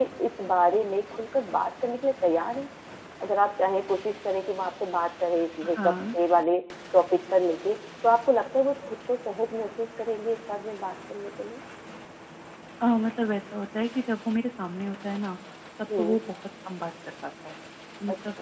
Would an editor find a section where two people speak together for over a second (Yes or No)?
No